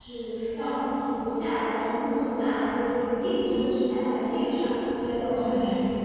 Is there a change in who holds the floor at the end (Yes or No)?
Yes